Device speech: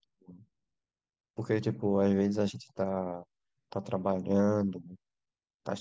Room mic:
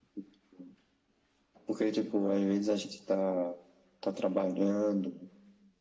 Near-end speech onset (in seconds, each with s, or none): none